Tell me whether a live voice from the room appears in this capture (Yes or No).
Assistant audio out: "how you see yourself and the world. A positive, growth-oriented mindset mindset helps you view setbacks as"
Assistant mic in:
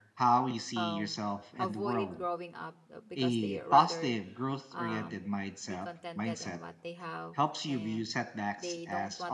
Yes